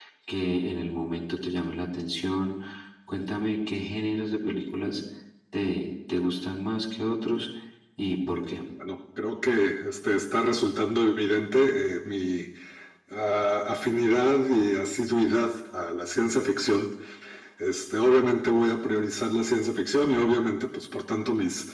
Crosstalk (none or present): none